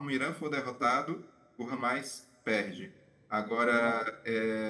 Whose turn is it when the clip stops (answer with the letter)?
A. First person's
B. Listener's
A